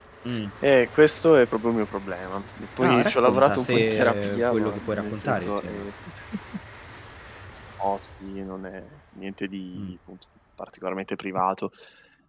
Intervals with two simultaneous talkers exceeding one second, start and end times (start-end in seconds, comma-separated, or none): 2.8-5.9